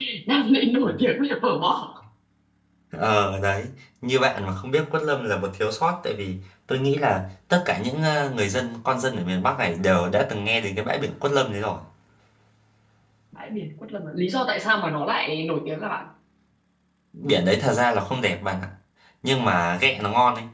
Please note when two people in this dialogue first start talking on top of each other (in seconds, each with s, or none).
none